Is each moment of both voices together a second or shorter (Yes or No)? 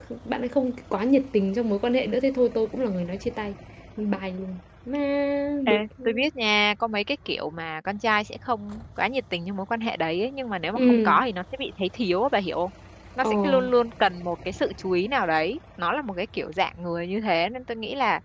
Yes